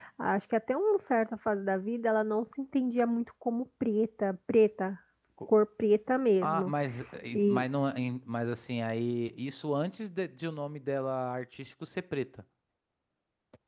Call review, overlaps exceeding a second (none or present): none